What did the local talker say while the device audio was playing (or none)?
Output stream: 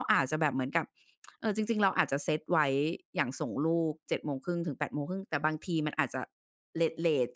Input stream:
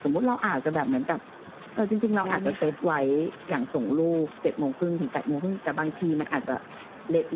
ได้ไหมคะ?